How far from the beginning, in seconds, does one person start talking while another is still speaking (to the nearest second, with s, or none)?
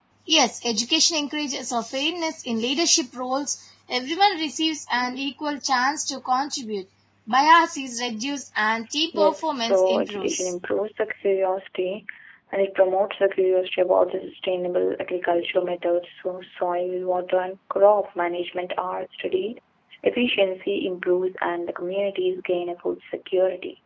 9 s